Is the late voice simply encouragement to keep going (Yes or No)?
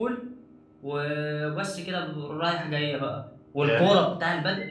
Yes